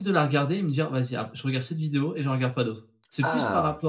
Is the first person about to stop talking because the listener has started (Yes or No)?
No